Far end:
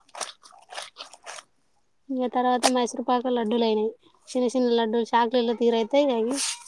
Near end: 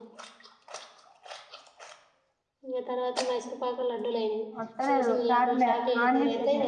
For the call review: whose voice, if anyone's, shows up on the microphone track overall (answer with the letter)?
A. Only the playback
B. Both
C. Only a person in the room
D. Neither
B